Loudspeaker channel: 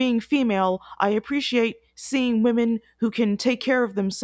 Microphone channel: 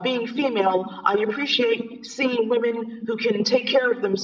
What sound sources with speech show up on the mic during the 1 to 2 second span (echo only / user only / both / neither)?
echo only